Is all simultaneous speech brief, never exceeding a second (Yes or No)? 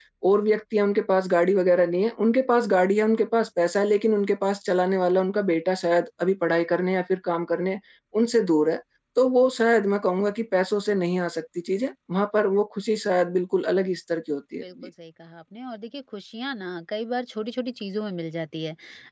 Yes